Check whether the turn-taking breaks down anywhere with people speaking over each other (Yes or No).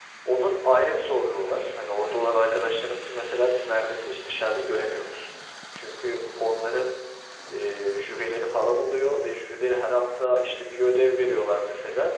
No